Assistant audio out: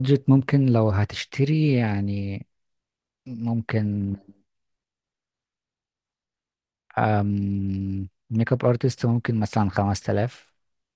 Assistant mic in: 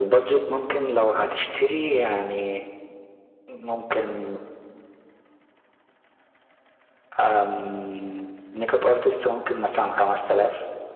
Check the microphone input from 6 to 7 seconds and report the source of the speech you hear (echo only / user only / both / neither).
neither